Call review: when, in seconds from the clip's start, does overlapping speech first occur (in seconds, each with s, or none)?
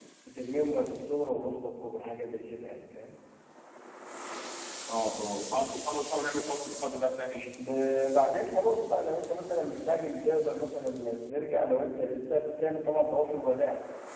none